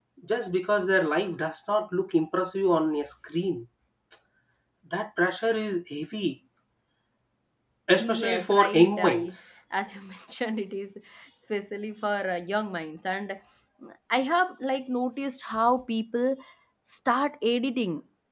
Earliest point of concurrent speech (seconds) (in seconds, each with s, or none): 8.0 s